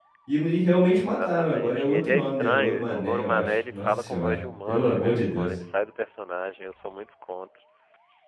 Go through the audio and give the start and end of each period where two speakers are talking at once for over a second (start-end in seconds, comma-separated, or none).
0.8-5.5